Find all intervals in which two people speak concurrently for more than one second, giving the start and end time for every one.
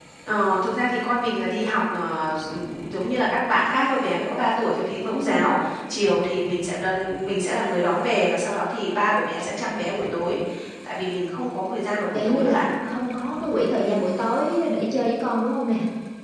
none

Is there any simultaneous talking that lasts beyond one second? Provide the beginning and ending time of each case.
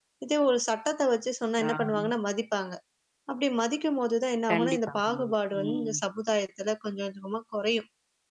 4.5-6.0

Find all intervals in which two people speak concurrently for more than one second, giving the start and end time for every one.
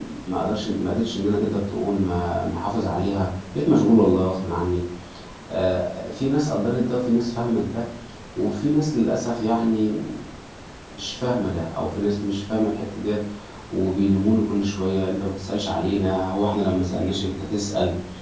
none

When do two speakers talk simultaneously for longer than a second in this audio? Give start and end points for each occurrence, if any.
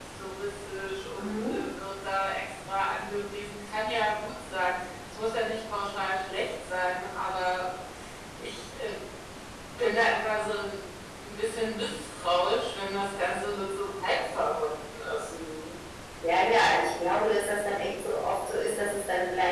none

